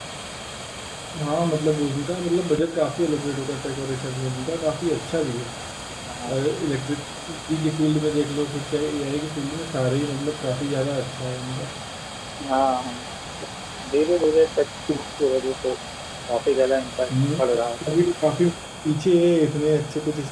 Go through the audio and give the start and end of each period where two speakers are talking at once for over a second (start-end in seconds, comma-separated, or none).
none